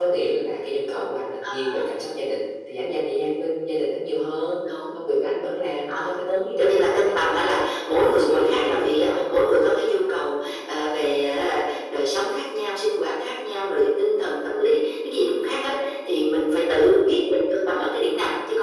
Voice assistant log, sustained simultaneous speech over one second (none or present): present